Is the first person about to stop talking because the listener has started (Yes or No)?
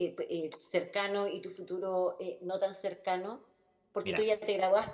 No